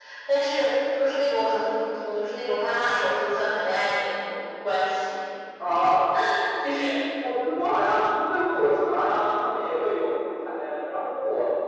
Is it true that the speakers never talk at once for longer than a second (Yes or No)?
Yes